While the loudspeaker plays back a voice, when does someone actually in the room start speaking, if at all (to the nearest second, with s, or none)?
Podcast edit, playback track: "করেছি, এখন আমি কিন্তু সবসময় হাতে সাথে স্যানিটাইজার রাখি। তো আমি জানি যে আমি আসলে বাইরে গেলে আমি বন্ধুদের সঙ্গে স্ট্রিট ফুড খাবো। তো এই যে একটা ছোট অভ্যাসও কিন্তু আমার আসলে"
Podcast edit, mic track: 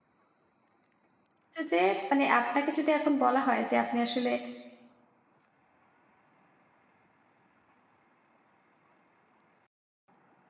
1 s